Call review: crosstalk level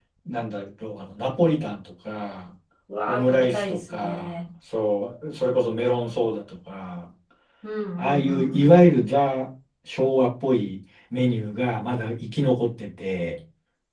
present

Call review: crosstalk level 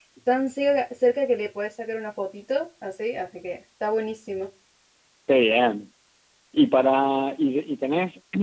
none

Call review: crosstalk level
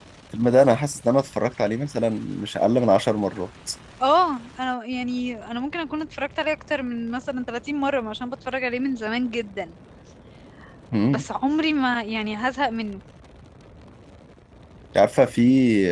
none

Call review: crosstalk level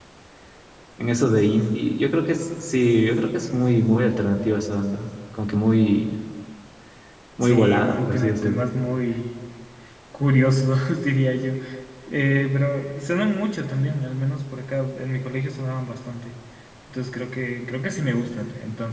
present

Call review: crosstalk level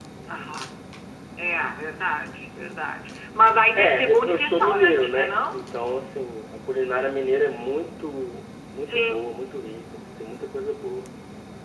present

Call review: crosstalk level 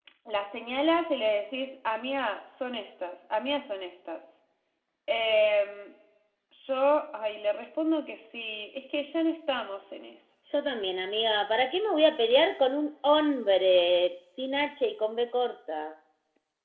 none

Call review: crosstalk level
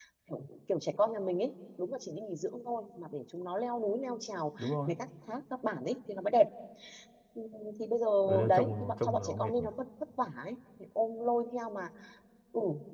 present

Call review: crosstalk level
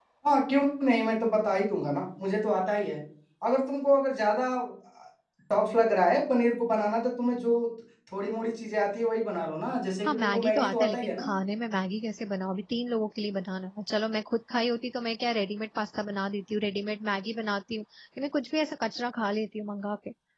present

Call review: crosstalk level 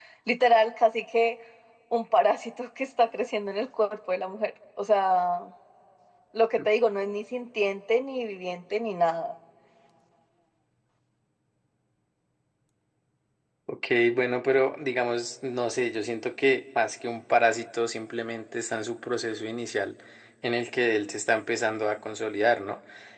none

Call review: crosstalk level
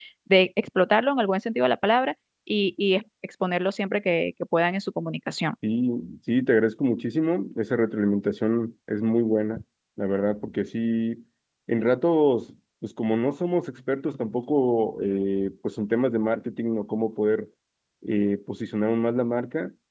none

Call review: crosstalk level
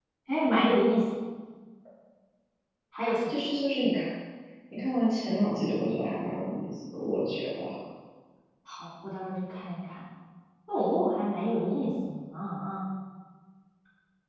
none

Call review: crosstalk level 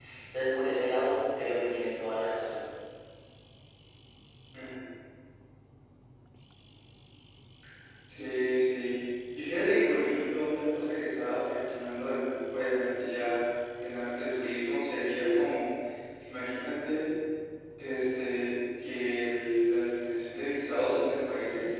none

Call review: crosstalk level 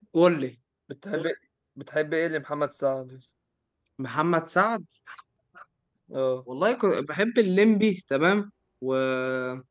none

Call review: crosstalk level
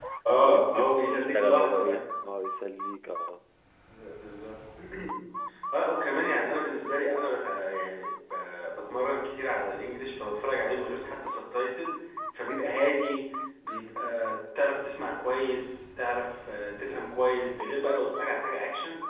present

